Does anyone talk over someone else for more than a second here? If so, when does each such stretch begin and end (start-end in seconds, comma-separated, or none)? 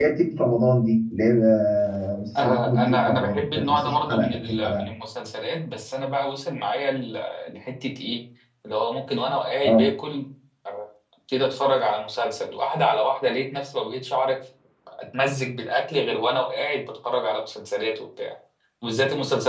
2.4-4.9